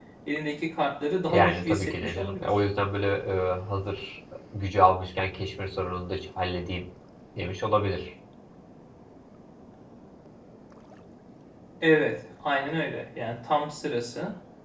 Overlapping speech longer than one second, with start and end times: 1.3-2.5

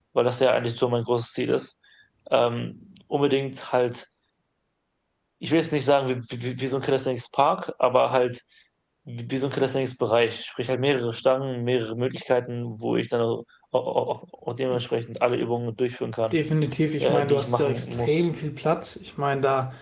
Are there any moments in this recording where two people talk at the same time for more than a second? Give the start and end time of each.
17.0-18.3

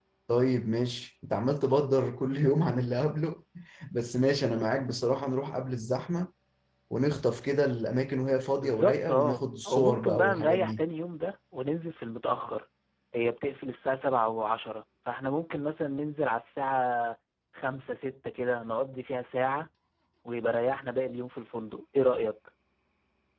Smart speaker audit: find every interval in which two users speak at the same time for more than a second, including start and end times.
8.6-10.8

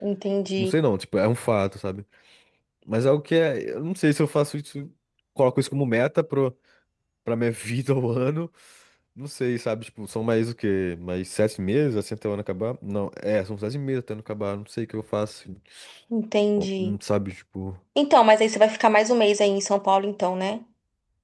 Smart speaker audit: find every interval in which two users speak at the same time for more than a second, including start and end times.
none

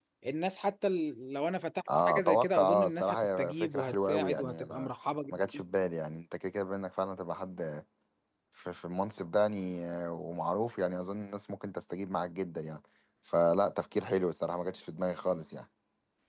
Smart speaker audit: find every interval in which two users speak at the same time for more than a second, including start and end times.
2.0-4.9

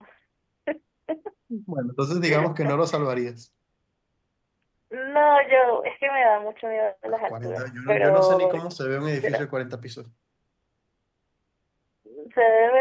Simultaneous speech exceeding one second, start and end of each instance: 7.1-8.5

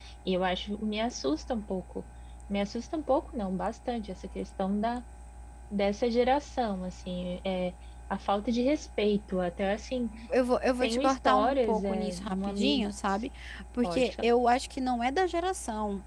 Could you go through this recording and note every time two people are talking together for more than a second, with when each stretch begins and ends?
10.8-12.9

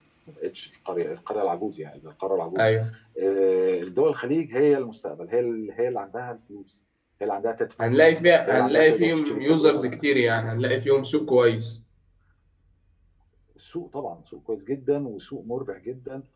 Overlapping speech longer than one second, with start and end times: 8.5-10.0

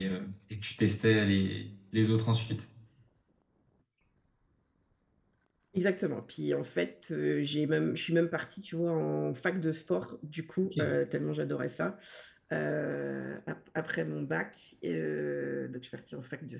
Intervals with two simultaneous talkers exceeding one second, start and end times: none

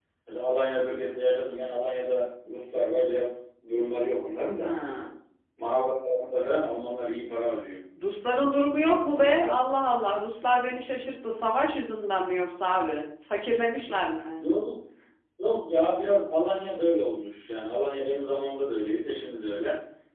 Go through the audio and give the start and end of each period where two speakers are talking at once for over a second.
none

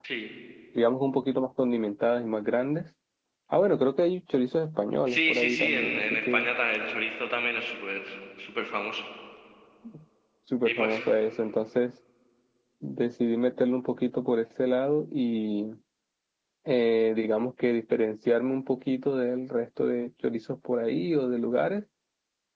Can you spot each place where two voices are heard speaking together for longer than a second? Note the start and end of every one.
5.1-6.5

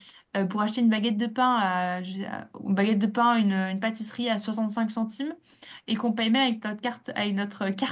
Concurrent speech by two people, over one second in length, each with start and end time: none

